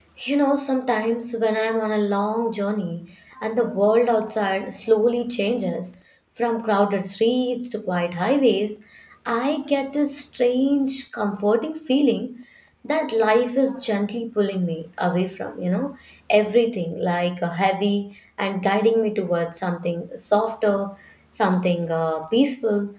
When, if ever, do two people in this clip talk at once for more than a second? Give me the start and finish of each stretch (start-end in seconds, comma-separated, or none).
none